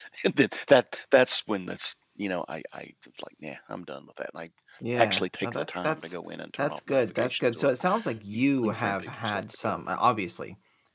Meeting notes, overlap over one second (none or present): present